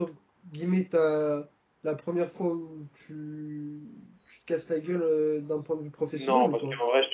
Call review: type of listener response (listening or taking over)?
taking over